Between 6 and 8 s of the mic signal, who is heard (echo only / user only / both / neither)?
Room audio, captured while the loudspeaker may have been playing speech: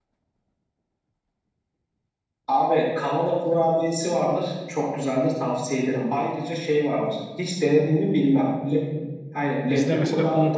echo only